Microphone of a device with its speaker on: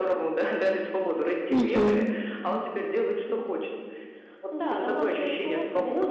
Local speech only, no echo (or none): Мгм.